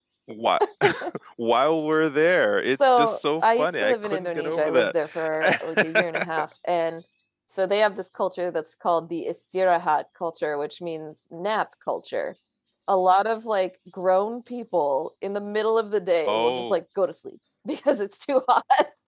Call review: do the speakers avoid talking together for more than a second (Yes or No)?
No